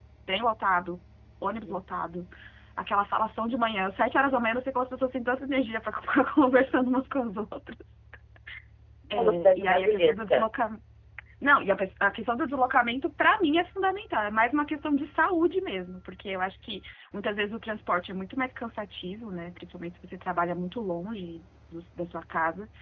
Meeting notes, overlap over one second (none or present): present